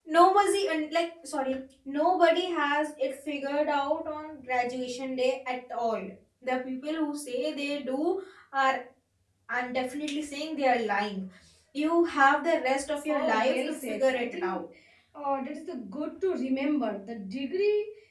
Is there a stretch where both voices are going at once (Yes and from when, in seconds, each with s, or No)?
Yes, from 13.1 s